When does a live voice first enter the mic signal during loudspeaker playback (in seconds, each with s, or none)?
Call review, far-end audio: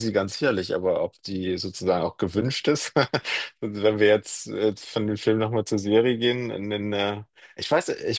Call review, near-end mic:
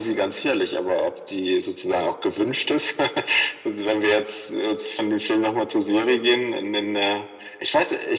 none